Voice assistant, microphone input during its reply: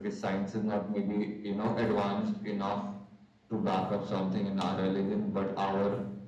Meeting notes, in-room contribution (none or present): none